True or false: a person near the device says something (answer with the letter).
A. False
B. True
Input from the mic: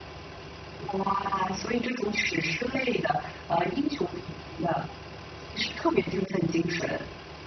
A